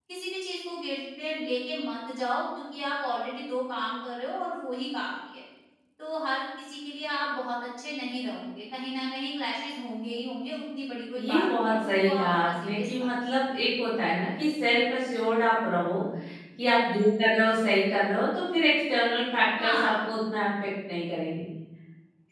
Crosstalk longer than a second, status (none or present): present